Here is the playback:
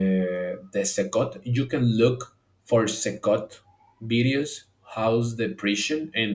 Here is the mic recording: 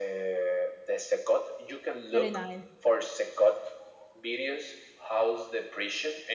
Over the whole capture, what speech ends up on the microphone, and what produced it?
both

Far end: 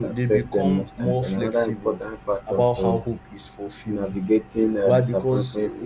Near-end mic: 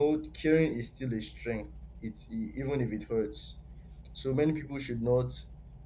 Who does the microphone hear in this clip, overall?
user only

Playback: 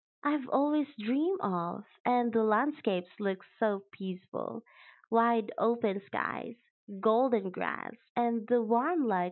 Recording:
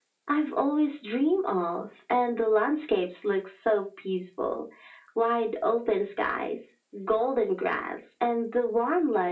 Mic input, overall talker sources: echo only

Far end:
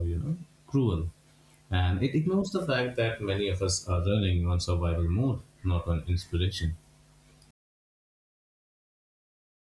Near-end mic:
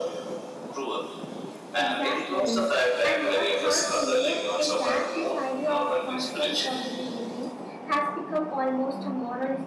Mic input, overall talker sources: both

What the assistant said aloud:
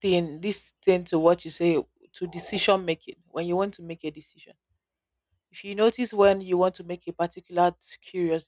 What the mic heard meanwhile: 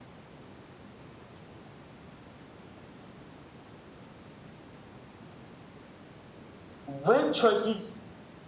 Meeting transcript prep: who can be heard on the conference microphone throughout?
user only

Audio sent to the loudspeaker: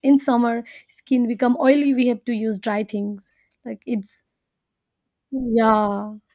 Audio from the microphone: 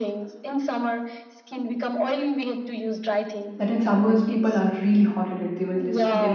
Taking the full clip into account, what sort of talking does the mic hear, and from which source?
both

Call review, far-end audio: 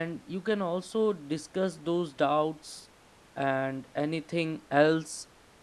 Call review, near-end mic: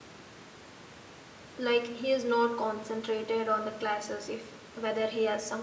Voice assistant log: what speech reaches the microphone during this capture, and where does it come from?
user only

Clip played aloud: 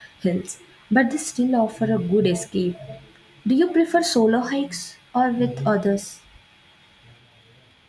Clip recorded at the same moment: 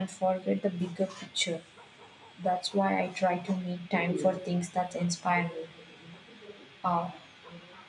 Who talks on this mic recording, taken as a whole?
user only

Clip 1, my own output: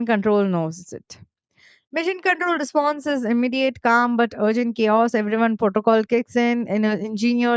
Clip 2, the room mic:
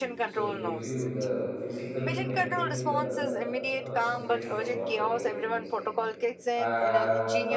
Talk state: both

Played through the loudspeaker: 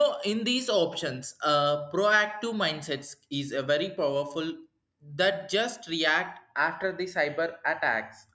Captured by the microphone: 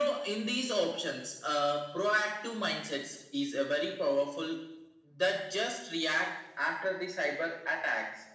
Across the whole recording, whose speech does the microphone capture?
echo only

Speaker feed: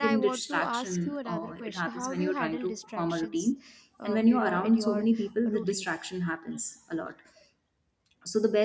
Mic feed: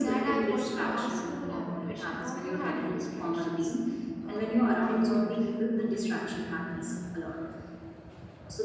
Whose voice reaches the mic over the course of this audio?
echo only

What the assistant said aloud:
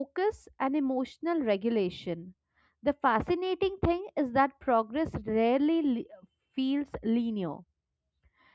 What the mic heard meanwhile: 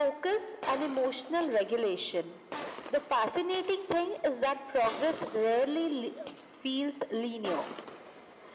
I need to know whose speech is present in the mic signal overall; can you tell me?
echo only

